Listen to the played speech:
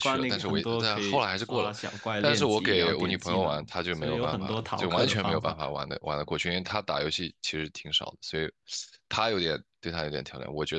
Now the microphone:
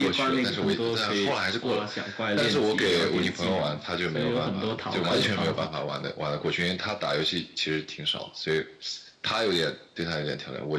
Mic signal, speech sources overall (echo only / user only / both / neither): echo only